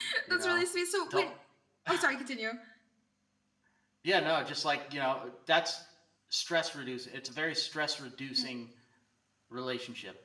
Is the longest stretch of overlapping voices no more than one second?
Yes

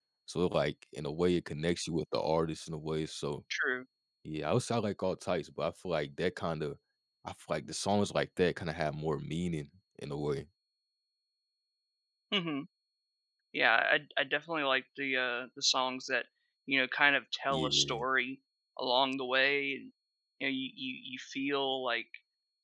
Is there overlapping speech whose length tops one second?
No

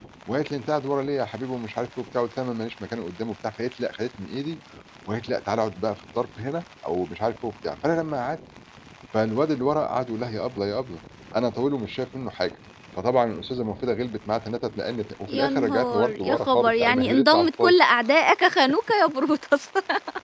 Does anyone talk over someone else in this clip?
Yes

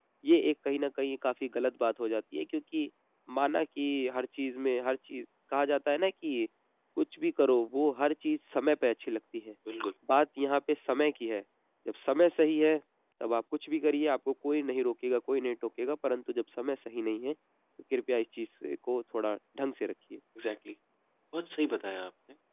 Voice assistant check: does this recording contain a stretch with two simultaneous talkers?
No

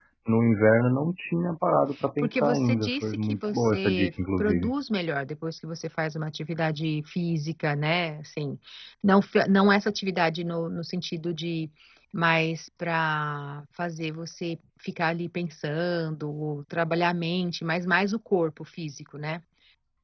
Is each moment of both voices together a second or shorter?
No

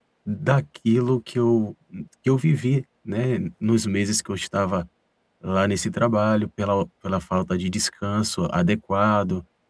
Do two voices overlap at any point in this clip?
No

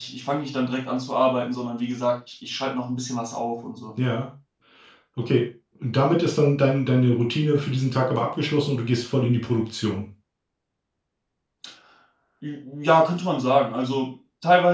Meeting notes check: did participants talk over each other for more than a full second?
No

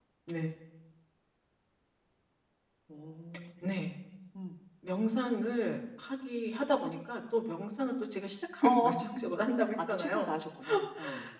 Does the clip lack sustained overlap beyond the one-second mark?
Yes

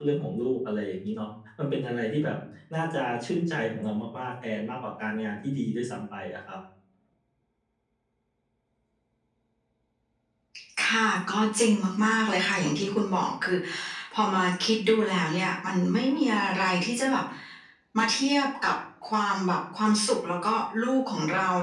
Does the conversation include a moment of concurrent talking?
No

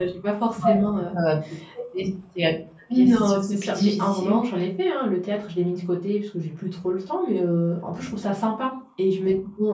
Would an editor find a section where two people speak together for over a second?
Yes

